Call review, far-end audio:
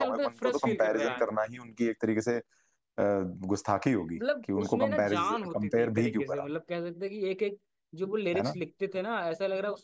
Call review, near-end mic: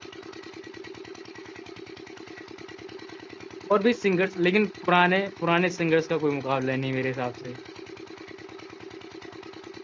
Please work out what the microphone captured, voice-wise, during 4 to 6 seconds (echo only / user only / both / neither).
user only